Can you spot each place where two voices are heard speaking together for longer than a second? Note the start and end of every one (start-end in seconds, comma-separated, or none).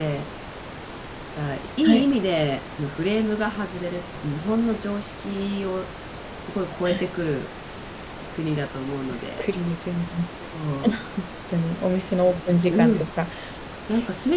none